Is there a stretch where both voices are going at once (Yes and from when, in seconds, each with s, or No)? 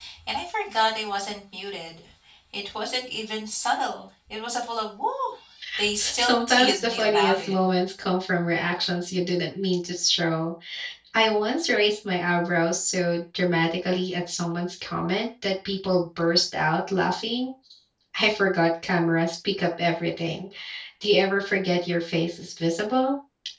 Yes, from 6.0 s